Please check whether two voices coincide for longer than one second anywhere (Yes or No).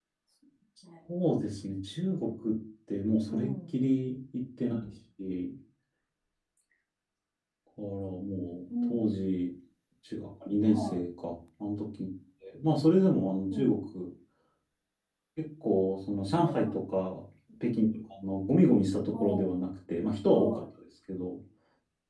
No